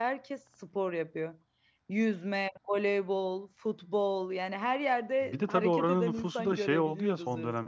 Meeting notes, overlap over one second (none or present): present